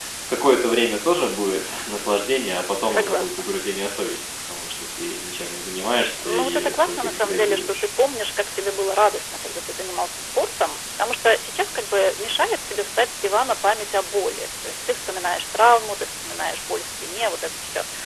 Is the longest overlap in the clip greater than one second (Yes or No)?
Yes